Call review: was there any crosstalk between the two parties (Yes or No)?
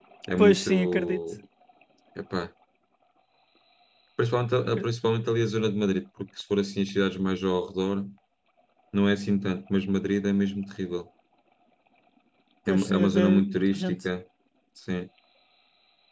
Yes